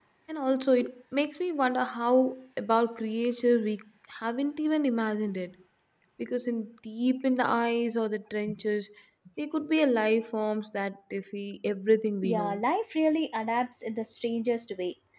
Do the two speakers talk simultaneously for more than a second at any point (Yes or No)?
No